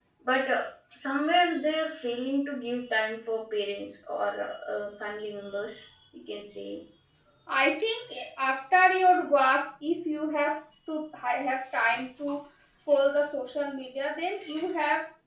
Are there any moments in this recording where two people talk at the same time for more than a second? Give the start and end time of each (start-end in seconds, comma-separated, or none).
none